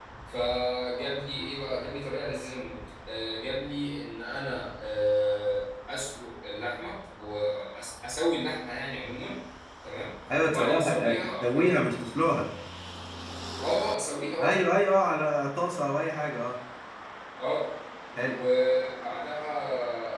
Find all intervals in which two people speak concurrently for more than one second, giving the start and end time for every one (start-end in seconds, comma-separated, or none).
10.5-11.7